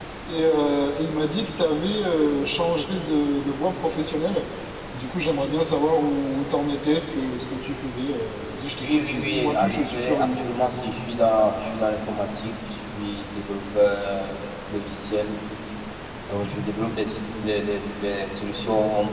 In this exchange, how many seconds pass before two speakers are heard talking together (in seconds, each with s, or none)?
8.8 s